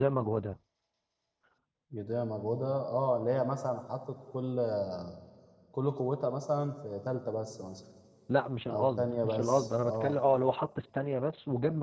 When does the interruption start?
8.7 s

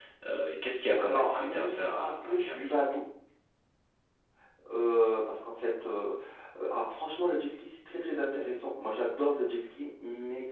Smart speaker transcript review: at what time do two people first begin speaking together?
1.0 s

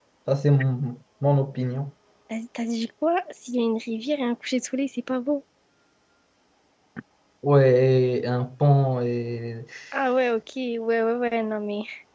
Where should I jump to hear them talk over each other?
none

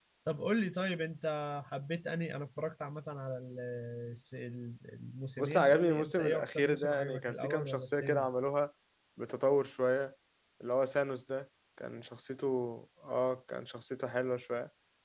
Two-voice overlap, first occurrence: 5.4 s

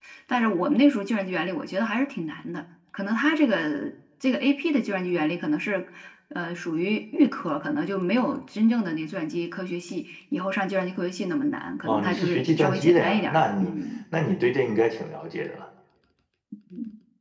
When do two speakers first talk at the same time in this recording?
11.8 s

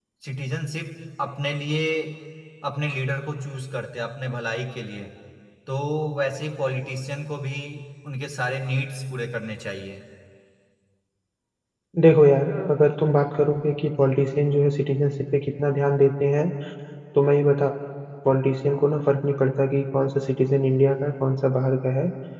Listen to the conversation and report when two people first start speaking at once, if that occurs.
none

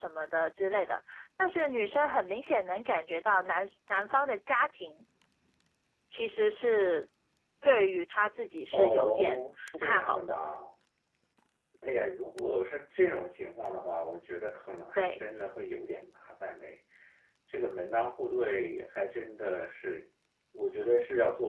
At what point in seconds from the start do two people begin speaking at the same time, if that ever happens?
8.7 s

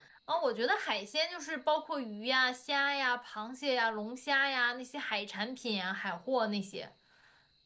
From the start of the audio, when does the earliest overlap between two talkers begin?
none

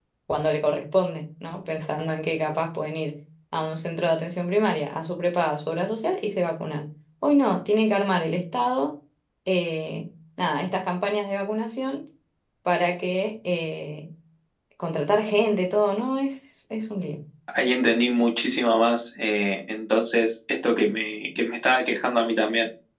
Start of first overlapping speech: none

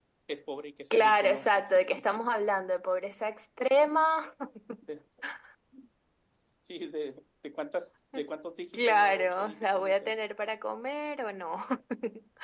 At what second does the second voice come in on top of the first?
0.9 s

